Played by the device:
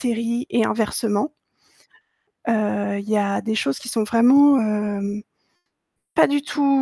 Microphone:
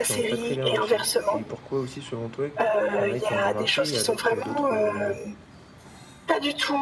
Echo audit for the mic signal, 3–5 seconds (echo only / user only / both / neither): both